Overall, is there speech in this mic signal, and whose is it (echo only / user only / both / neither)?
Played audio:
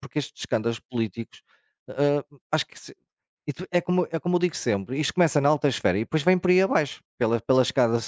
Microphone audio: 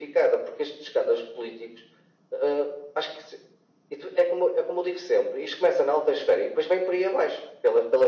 echo only